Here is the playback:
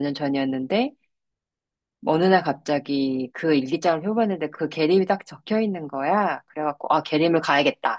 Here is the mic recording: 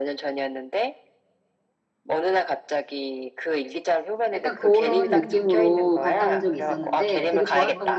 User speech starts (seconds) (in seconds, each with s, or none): 4.3 s